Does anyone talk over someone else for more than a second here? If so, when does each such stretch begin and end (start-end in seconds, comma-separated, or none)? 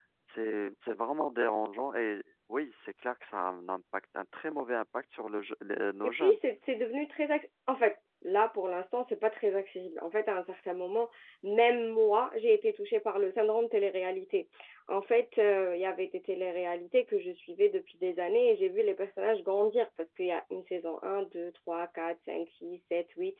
none